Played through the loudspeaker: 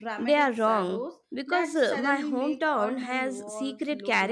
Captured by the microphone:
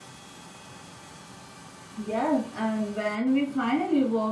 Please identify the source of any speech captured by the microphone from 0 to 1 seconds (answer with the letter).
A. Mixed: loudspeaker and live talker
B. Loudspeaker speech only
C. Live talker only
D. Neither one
D